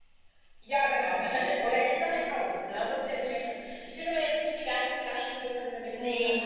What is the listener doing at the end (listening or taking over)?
listening